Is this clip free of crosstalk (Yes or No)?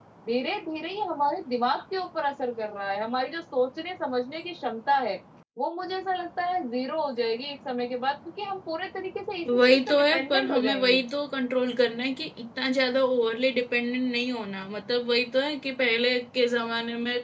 No